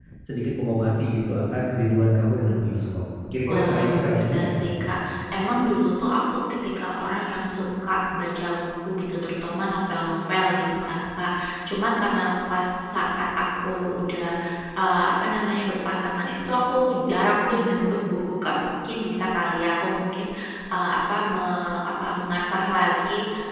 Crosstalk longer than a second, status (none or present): present